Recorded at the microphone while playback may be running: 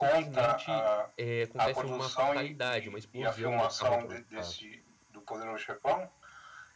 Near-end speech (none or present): present